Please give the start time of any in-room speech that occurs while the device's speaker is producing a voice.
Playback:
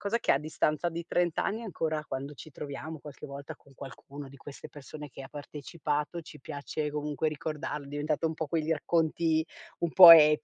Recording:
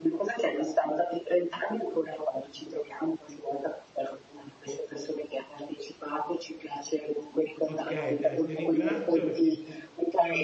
8 s

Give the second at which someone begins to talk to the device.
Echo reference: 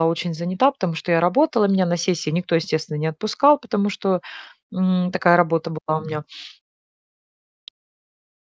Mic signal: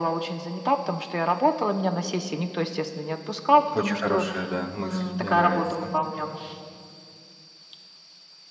4 s

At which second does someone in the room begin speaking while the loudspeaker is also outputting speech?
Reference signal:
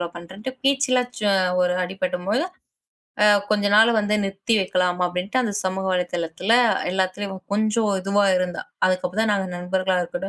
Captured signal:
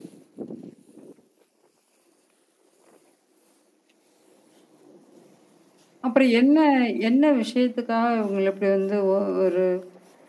6 s

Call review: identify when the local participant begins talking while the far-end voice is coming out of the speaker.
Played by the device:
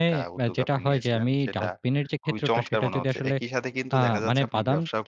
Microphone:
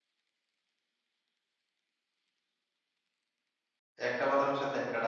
4 s

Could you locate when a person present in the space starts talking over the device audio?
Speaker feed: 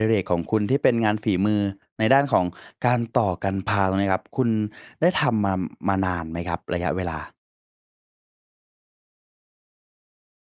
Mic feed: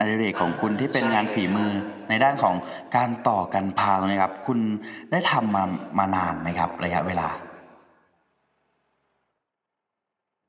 0 s

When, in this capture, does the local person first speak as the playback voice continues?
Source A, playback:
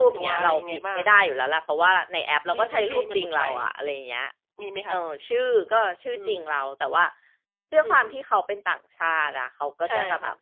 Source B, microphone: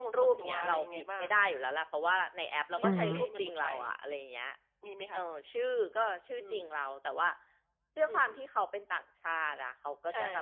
3 s

